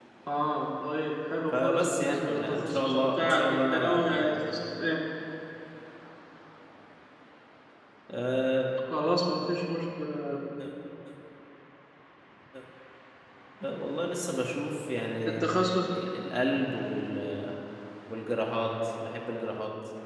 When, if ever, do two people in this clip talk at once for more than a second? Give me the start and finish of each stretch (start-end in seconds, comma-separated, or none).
1.5-4.3